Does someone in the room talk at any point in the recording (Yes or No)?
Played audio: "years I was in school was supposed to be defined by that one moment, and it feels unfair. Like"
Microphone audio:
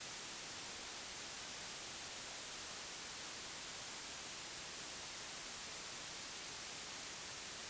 No